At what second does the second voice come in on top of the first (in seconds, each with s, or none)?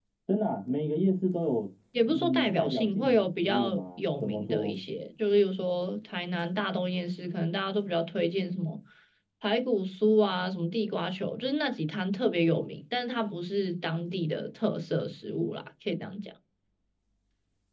1.9 s